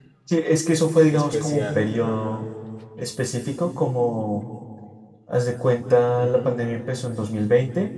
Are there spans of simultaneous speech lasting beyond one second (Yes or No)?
Yes